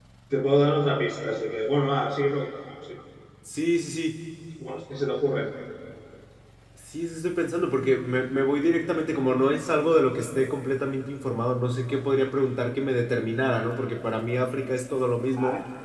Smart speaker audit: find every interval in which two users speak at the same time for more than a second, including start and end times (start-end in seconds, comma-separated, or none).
none